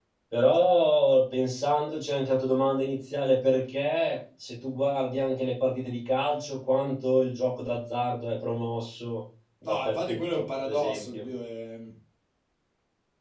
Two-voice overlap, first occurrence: 9.6 s

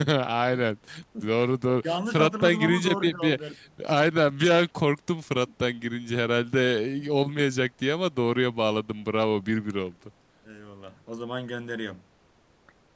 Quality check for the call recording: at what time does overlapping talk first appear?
1.8 s

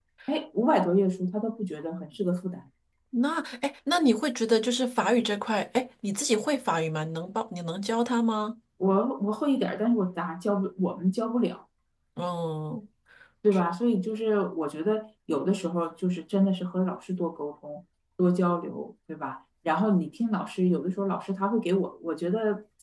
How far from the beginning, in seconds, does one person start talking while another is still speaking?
none

